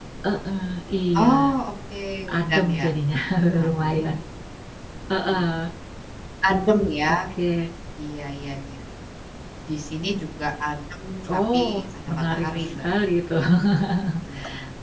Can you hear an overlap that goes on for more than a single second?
Yes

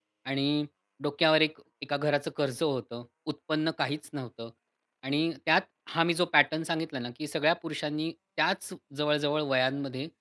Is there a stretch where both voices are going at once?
No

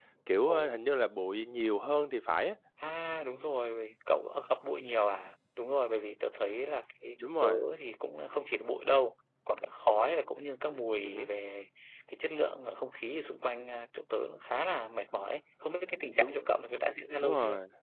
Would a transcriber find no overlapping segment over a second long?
Yes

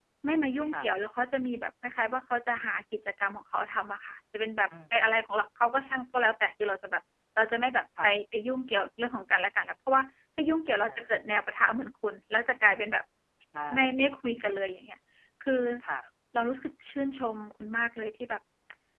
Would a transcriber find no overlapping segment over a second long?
Yes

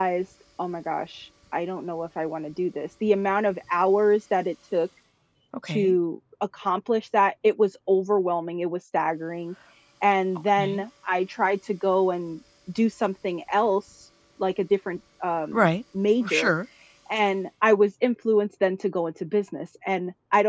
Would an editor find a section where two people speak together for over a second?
No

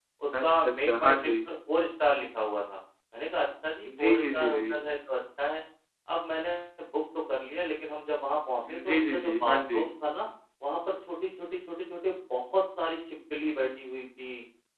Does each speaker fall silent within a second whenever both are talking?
No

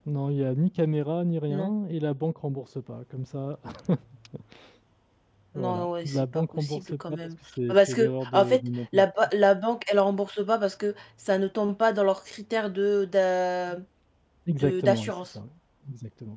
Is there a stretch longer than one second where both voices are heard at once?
Yes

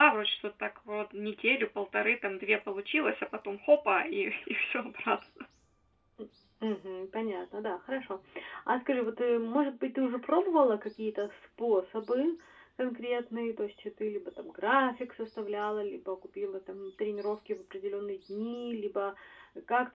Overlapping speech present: No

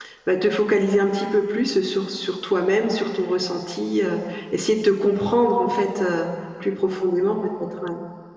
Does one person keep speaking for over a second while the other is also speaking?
No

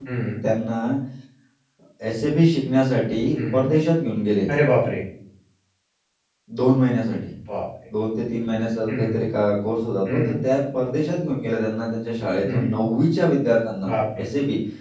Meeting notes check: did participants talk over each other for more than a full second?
No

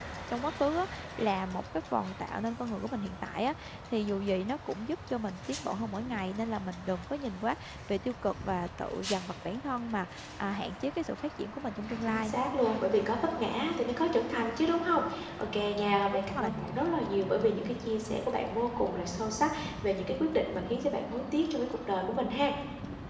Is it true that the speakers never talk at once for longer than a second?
Yes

